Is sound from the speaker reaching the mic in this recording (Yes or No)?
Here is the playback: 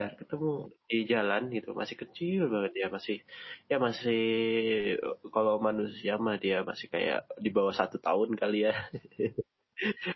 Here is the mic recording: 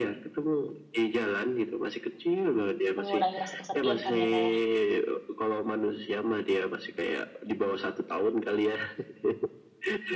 Yes